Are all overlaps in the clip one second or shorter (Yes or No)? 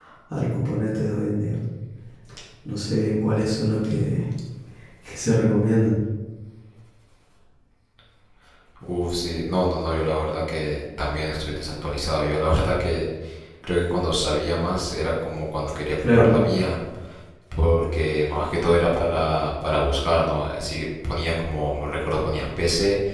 Yes